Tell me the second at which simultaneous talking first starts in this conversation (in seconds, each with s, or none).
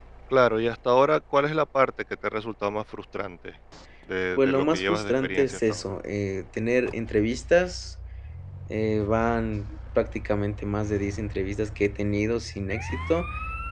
4.4 s